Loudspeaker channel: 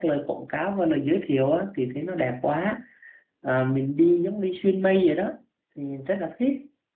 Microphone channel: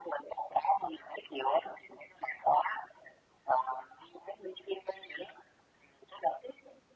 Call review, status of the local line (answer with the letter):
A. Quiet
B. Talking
A